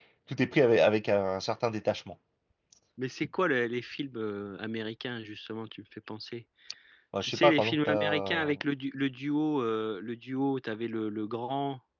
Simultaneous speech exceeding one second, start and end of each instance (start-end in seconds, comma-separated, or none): 7.2-8.5